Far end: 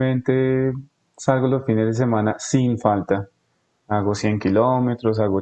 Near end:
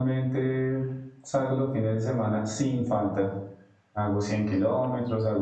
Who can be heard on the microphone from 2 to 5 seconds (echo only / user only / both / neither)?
echo only